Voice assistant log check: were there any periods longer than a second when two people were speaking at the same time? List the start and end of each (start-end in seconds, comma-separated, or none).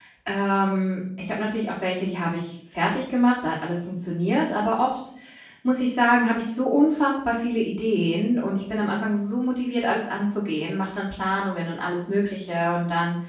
none